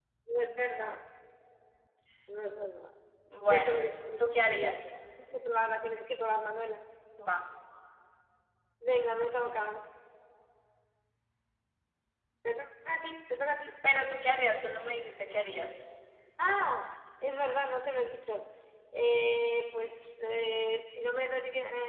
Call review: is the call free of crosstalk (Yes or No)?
No